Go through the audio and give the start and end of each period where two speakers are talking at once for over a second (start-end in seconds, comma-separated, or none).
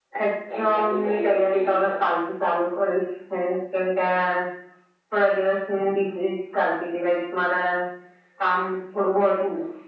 0.6-2.1